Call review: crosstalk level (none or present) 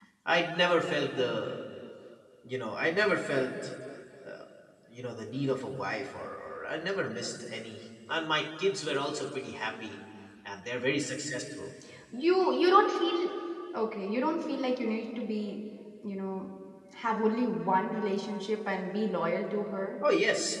none